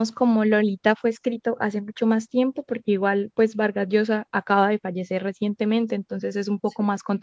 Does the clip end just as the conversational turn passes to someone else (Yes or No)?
No